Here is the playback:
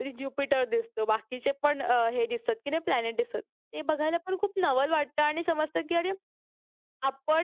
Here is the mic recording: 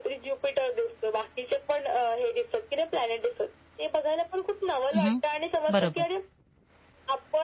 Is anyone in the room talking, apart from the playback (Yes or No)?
Yes